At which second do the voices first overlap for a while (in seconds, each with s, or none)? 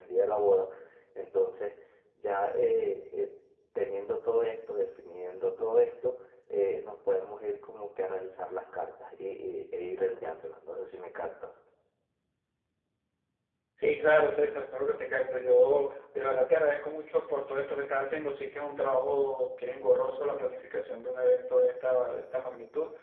none